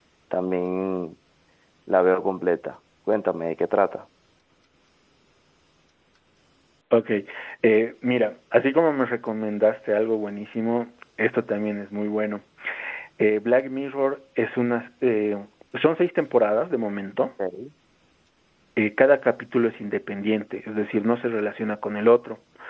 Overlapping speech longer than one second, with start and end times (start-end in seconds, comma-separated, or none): none